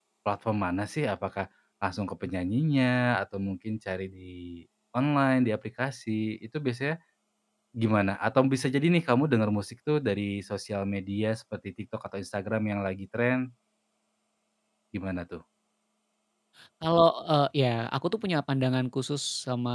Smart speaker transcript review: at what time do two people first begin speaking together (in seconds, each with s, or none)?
none